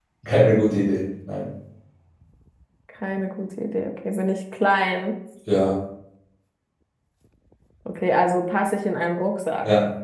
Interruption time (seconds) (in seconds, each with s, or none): none